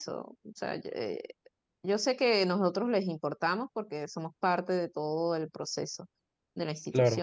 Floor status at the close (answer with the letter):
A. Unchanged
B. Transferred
A